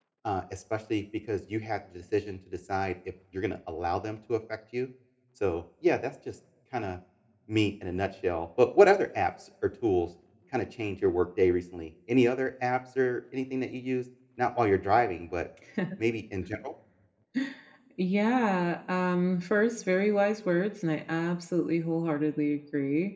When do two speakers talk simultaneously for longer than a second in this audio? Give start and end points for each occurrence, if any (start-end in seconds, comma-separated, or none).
none